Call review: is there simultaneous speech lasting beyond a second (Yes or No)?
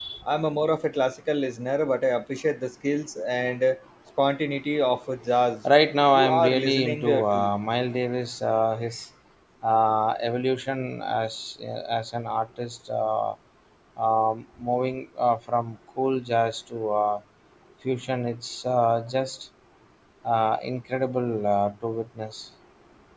Yes